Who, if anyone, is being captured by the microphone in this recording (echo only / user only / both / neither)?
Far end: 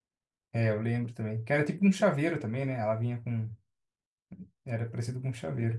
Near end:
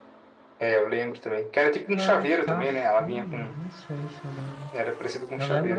both